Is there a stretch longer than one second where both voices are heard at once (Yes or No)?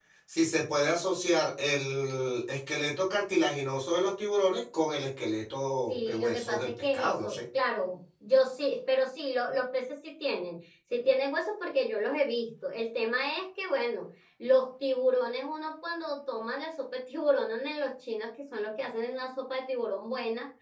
Yes